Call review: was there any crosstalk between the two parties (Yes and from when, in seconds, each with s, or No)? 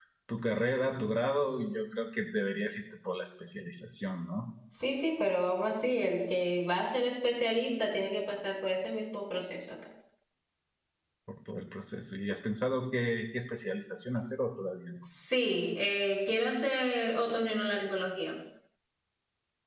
No